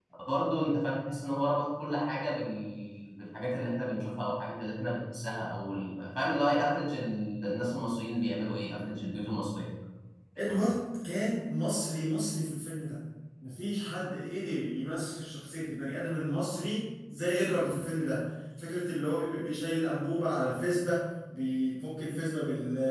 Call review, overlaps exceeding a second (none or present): none